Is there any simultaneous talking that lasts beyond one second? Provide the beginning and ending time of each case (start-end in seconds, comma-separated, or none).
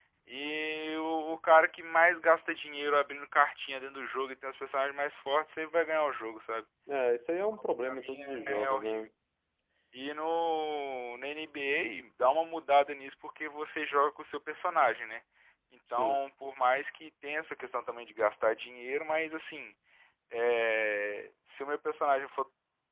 7.8-9.1